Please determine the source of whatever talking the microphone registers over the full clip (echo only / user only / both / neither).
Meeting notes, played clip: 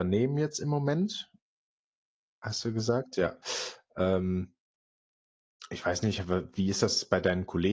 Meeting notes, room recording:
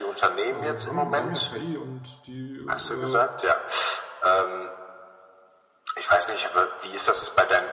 both